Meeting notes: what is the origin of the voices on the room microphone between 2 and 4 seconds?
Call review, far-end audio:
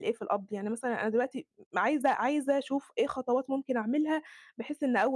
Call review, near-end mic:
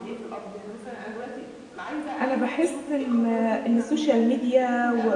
both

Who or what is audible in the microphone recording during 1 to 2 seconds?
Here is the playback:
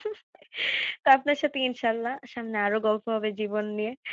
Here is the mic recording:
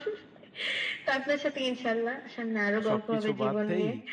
echo only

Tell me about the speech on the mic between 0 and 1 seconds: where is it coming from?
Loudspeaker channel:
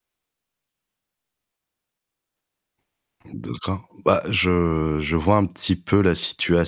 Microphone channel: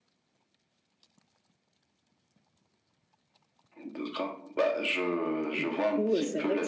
neither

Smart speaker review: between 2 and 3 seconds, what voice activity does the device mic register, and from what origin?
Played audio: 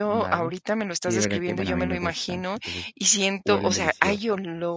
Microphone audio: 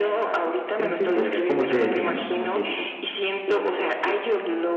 both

